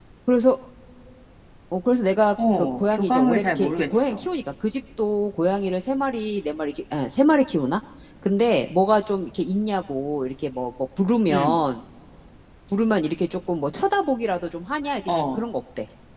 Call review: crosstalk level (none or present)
present